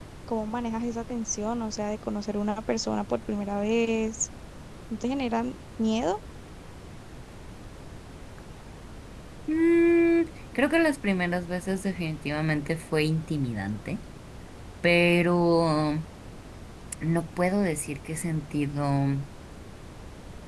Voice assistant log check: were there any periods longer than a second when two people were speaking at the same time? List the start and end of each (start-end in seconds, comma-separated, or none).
none